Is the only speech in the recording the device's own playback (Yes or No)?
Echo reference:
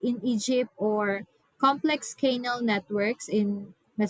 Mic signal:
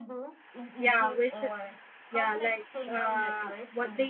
No